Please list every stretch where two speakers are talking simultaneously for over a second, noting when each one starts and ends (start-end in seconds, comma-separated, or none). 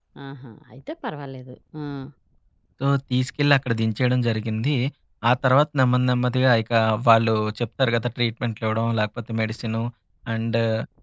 none